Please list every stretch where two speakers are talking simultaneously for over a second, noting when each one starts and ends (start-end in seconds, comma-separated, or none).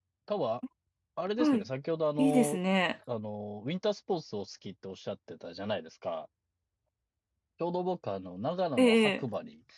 none